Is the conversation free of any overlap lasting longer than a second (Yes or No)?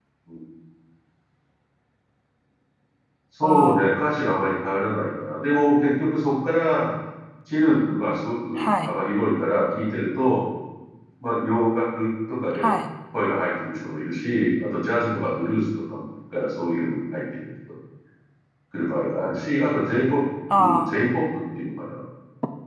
Yes